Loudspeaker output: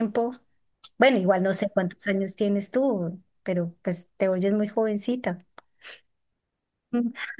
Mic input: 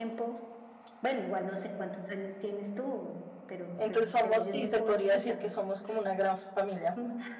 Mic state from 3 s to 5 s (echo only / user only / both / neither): both